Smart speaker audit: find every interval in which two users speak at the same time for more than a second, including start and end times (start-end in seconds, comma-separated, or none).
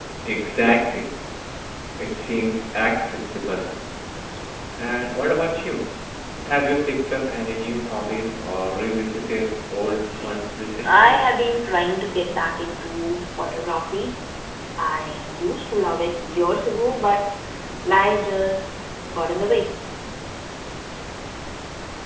none